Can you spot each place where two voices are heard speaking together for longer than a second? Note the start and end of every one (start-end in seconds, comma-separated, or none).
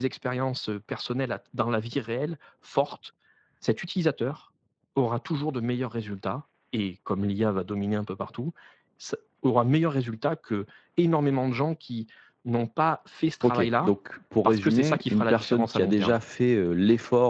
14.4-16.2